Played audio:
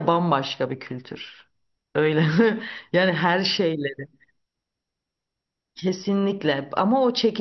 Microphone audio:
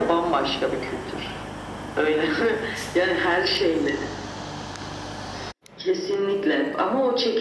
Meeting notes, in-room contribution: none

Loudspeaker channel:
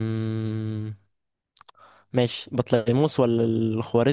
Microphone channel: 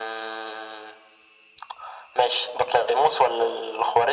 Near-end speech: none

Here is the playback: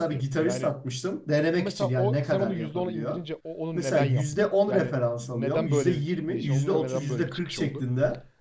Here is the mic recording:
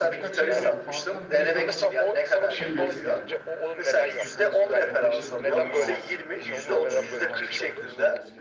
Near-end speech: present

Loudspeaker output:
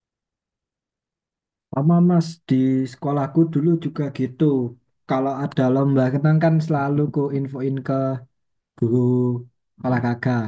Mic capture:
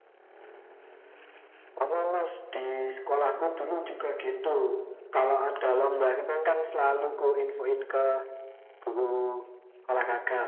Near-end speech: none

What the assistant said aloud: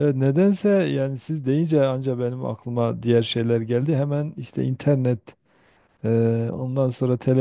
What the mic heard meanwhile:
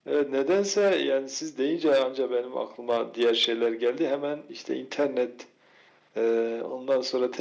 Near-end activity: none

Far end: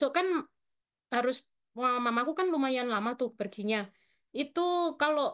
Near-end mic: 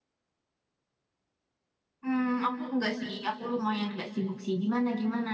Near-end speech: present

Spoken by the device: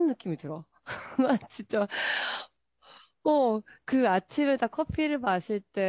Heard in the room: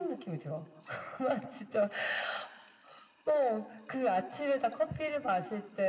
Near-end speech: none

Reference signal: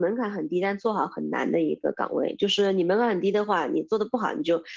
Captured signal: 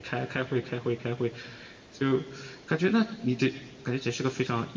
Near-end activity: present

